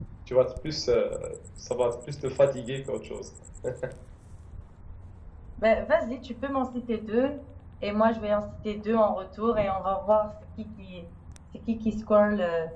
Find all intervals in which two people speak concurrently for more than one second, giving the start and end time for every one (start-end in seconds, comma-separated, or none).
none